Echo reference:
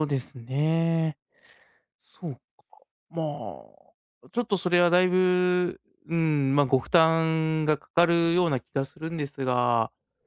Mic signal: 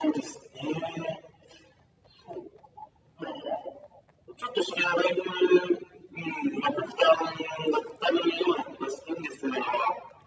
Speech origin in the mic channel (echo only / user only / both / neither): echo only